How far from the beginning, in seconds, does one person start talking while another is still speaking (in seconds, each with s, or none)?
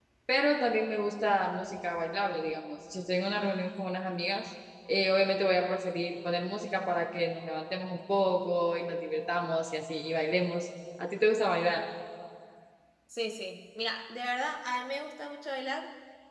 none